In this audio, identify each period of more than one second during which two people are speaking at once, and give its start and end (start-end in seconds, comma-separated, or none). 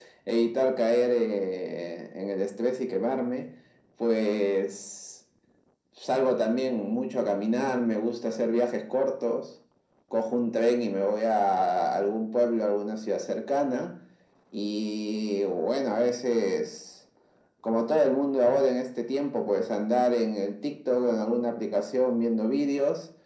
none